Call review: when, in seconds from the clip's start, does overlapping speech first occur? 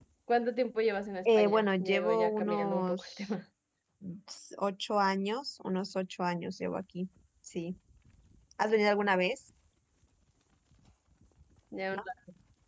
1.2 s

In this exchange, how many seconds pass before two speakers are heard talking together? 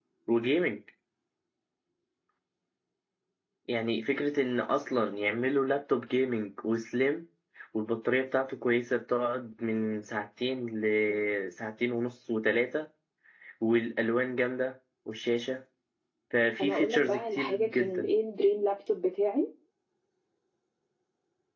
16.6 s

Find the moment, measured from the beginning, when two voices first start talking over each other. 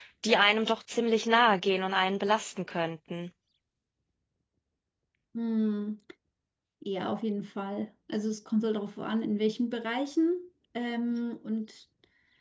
none

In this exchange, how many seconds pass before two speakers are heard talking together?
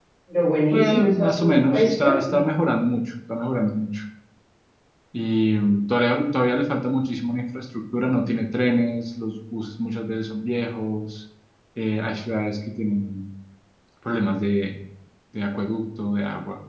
0.7 s

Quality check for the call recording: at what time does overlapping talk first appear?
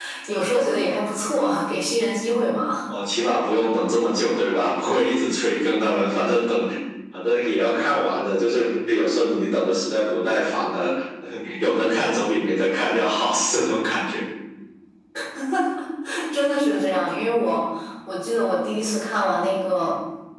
none

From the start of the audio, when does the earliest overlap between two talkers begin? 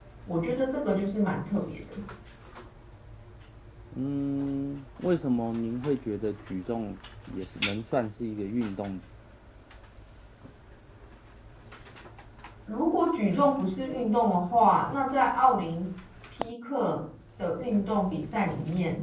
none

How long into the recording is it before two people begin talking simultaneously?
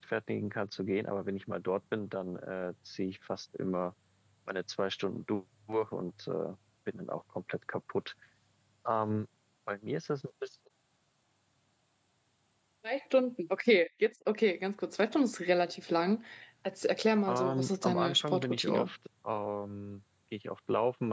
17.3 s

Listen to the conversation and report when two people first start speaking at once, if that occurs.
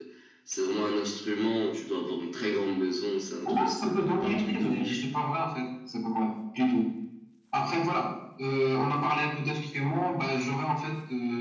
3.5 s

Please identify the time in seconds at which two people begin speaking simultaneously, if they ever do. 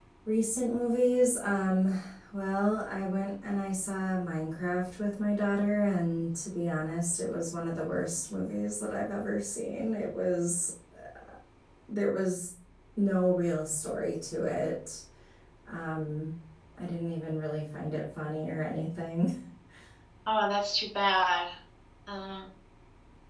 none

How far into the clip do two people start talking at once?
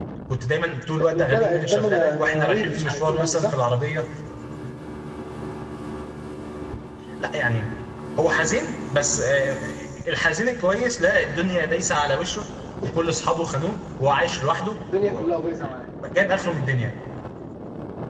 1.0 s

